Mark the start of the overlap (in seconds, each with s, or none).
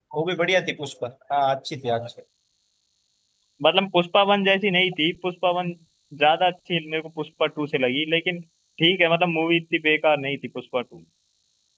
none